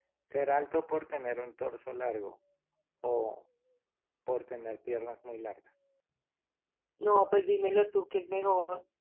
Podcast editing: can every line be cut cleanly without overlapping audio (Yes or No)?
Yes